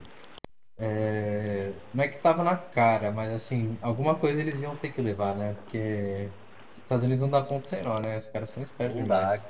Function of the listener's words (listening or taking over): taking over